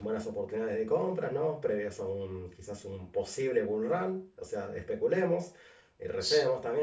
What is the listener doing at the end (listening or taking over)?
listening